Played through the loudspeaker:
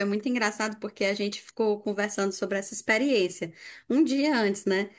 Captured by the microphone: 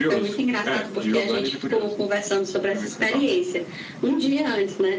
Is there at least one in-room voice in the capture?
Yes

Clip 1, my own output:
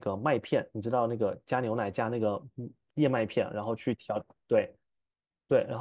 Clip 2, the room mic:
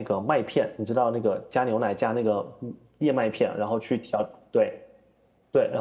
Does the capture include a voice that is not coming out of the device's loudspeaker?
No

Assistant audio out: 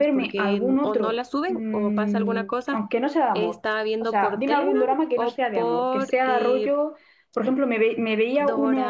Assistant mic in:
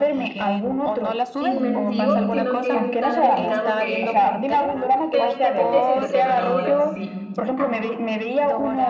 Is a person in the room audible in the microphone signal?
Yes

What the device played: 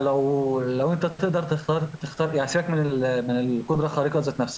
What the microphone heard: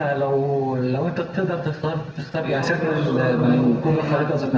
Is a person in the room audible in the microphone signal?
Yes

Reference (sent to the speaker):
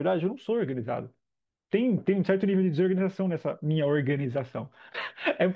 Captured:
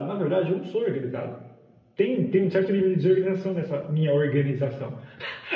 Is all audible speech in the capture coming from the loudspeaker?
Yes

